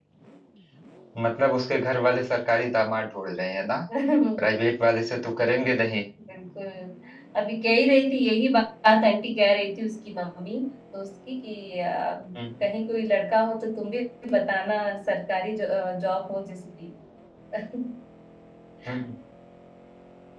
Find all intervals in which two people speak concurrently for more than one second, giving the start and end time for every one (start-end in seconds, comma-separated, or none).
none